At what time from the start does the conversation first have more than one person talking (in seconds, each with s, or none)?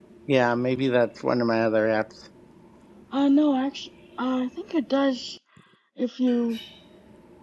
none